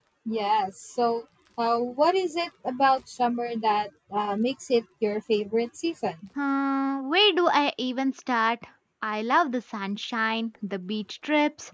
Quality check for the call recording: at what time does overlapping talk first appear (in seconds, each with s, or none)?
none